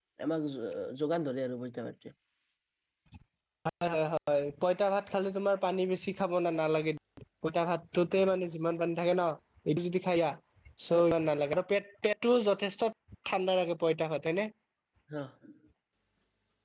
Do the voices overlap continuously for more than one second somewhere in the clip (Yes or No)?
No